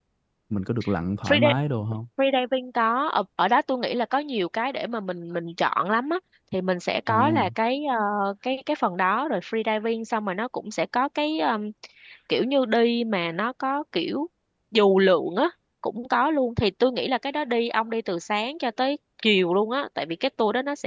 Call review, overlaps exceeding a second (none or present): none